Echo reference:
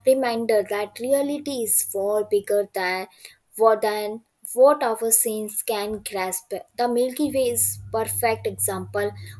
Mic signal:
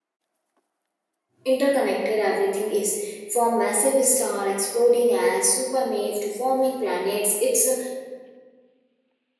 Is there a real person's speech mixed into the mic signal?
Yes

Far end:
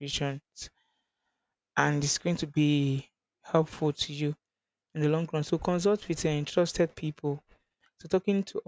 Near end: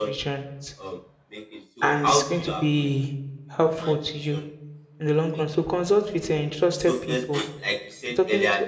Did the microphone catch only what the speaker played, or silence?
No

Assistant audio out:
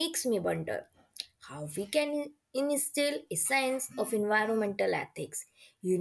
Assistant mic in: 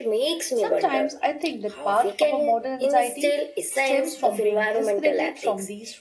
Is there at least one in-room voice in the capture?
Yes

